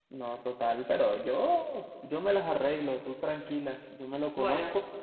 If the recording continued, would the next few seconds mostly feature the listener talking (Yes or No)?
No